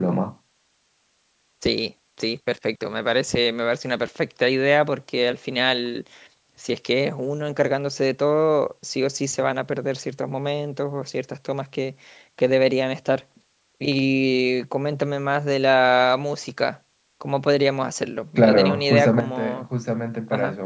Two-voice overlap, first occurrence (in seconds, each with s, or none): 18.4 s